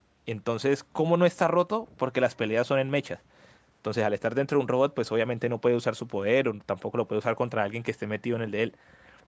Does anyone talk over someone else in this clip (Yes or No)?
No